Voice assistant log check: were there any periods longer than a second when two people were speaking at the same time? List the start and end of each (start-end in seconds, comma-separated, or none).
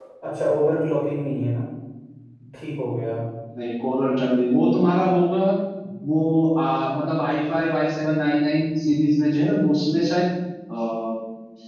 none